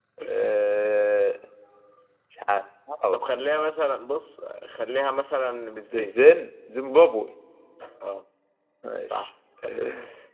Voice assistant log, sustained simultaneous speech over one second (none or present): none